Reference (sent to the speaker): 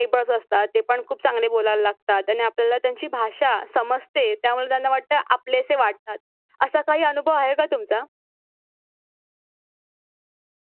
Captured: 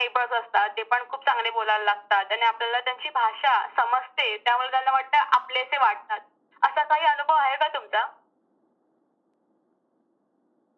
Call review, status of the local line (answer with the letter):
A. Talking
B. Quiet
B